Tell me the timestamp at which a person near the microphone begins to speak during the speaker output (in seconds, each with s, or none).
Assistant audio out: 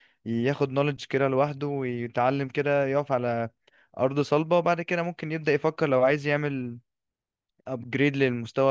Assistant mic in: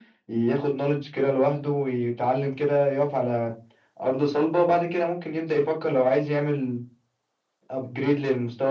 none